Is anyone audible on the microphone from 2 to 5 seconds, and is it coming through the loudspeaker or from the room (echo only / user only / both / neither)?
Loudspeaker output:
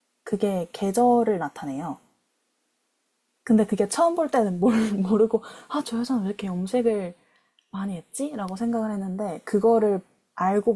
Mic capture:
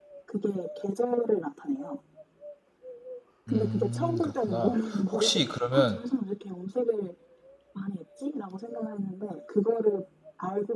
both